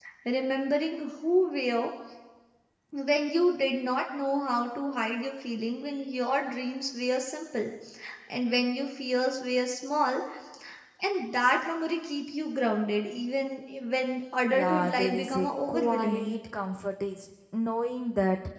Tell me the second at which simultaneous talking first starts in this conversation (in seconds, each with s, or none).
14.5 s